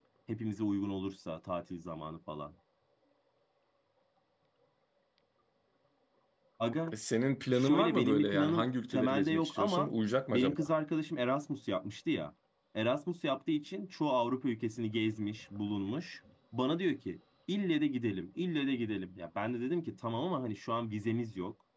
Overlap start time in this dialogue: 7.5 s

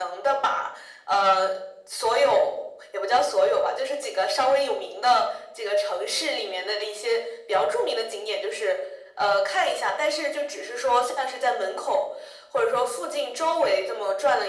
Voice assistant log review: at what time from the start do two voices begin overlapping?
none

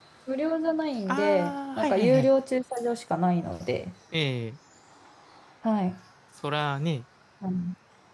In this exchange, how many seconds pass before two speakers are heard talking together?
1.1 s

